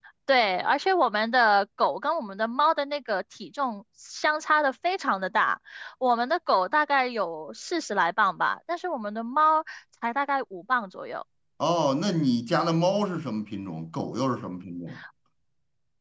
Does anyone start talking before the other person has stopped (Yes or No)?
No